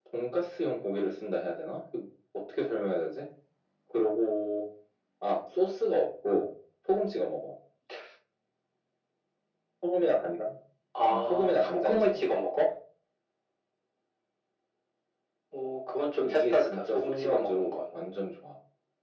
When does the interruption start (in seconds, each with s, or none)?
11.0 s